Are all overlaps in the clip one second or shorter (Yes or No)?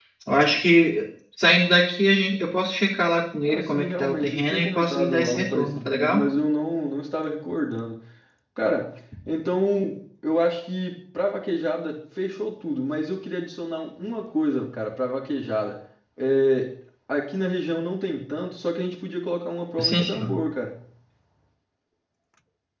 No